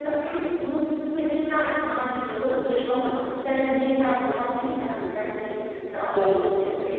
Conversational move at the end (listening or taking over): listening